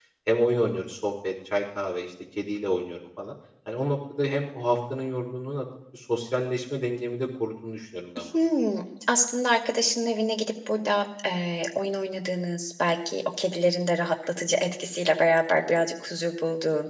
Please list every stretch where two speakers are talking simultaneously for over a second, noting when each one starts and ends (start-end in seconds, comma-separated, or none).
none